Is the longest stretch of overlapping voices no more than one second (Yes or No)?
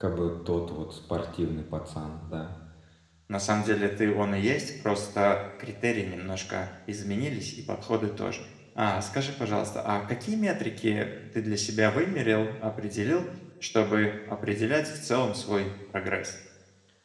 Yes